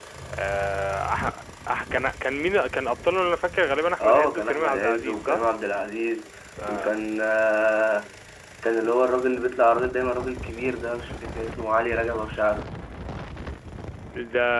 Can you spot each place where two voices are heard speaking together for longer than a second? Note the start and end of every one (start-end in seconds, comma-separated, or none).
4.0-5.4